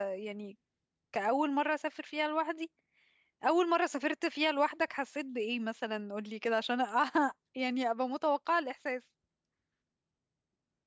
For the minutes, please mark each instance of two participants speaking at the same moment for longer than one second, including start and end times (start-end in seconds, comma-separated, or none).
none